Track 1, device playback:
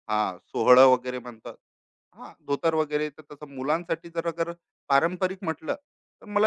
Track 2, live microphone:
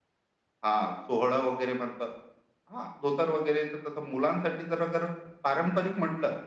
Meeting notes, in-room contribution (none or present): none